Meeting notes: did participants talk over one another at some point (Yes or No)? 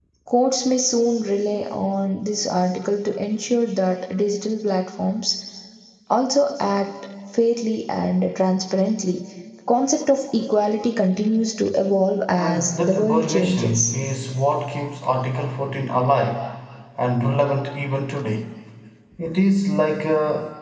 Yes